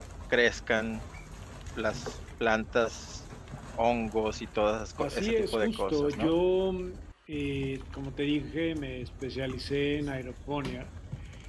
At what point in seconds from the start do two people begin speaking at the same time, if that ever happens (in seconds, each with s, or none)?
5.0 s